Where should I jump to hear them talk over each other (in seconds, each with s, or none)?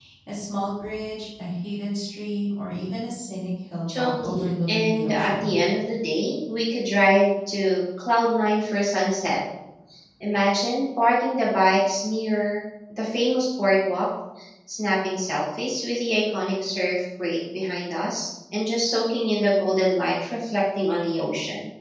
3.9 s